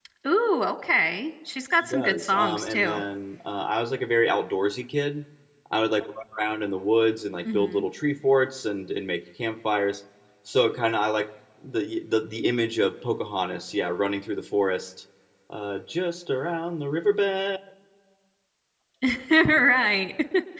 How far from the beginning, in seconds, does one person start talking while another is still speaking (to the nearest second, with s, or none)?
2 s